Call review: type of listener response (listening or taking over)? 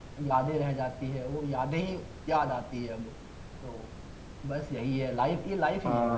taking over